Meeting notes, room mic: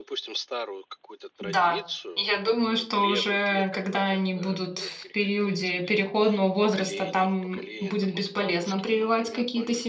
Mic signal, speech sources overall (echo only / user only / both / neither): both